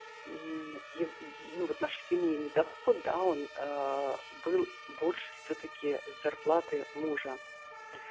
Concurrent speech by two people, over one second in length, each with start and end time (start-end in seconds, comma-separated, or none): none